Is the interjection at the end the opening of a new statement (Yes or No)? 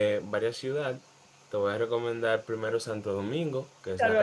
Yes